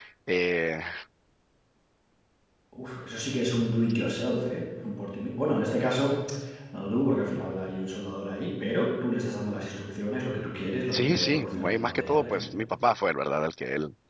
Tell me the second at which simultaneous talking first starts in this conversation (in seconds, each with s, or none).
10.9 s